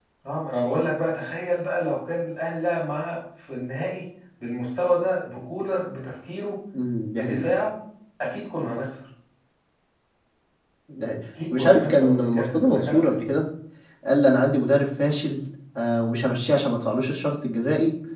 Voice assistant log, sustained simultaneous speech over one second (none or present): present